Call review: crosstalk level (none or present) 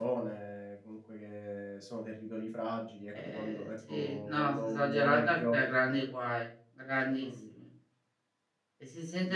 present